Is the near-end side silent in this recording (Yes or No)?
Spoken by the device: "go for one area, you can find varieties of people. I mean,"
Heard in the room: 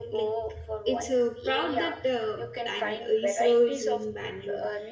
No